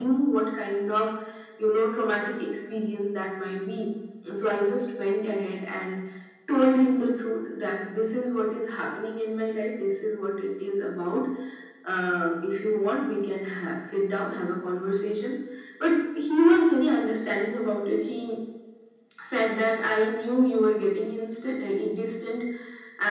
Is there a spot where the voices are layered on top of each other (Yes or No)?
No